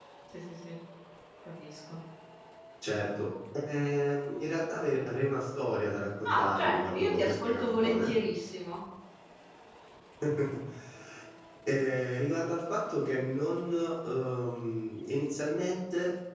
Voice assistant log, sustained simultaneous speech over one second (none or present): present